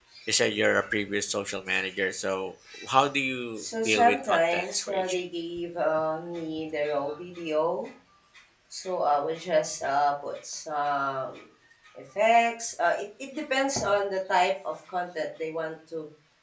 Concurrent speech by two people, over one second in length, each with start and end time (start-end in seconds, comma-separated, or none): 3.9-5.2